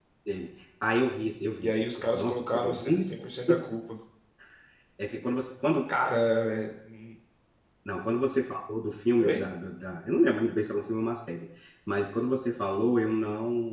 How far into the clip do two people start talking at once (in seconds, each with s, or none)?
1.6 s